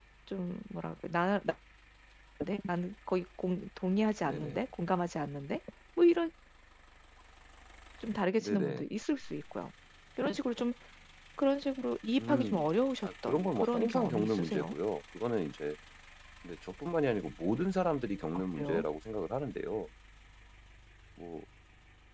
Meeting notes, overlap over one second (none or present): present